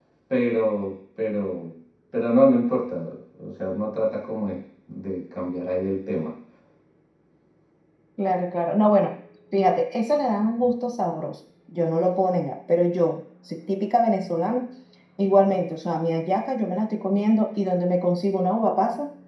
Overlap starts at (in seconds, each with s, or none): none